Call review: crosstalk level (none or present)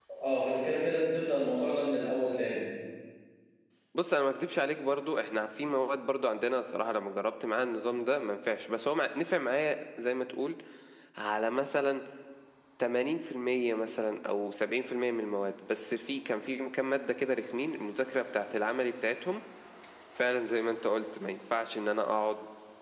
none